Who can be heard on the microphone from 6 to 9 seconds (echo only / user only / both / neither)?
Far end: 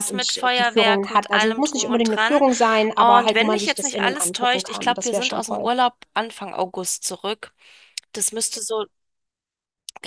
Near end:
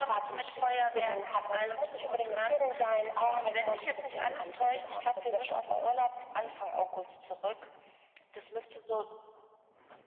echo only